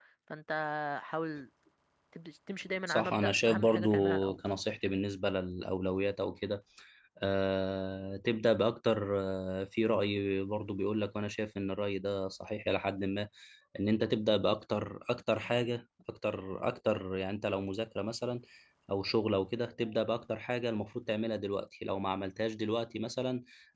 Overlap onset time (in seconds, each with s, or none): 2.9 s